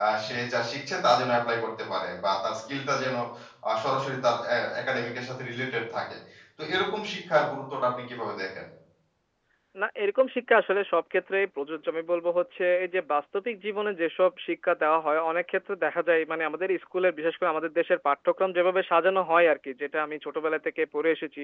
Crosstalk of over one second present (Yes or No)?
No